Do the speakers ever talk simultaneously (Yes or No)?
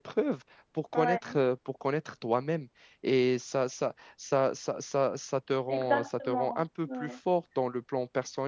Yes